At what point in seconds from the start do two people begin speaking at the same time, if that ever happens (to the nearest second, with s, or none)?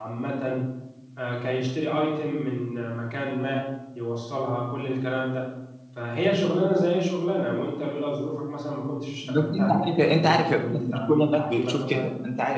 9 s